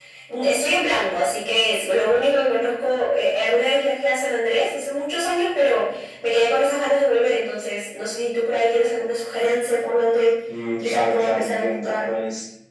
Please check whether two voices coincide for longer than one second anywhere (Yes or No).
Yes